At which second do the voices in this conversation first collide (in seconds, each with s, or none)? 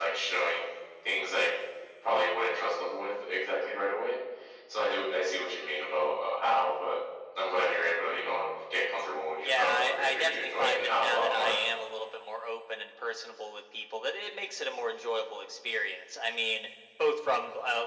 9.4 s